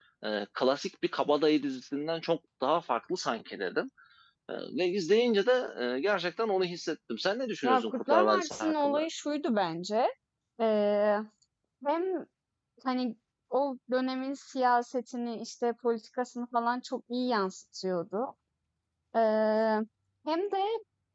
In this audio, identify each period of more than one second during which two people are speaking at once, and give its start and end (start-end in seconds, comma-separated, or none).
7.6-9.1